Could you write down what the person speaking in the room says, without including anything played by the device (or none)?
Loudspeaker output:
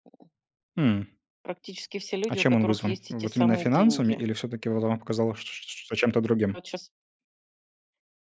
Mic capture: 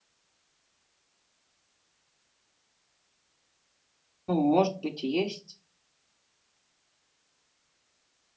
Ну, может быть, и есть.